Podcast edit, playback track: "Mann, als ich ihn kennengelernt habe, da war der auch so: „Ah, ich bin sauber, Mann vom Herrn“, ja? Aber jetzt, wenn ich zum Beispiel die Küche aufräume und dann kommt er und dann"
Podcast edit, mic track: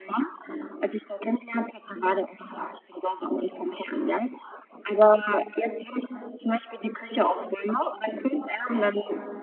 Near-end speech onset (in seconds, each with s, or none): none